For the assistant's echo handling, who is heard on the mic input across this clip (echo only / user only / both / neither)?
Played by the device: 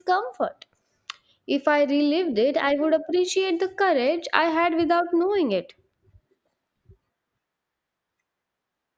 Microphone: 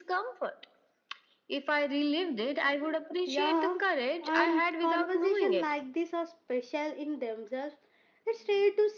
both